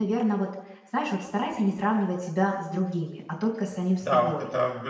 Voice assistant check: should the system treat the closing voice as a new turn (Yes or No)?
Yes